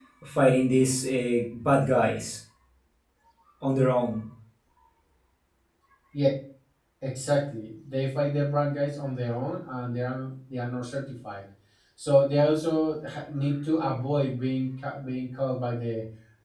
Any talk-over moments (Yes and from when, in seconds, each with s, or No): No